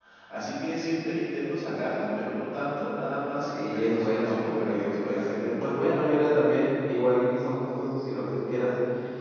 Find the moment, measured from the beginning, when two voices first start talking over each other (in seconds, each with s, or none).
3.5 s